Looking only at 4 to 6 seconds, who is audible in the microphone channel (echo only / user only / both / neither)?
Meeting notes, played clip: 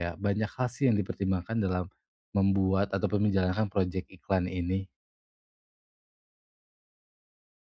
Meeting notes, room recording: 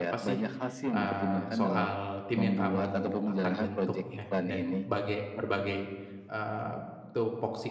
both